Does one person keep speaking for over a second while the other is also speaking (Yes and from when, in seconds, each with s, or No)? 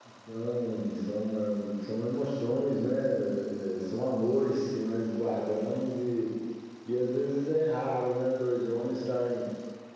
No